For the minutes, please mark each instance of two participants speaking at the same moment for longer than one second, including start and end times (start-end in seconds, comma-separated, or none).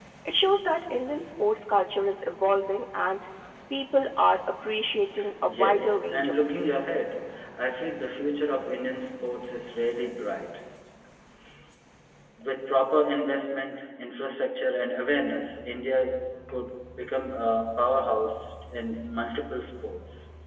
5.5-7.0